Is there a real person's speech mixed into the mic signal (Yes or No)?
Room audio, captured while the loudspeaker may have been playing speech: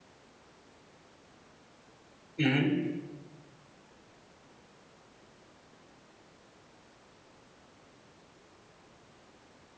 Yes